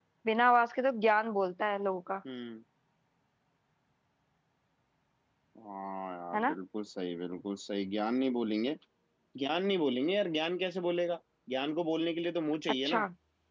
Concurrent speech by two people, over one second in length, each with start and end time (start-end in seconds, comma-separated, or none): none